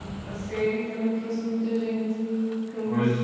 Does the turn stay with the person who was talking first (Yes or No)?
No